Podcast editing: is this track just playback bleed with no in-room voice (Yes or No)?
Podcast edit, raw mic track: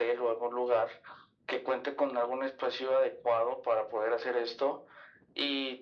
Yes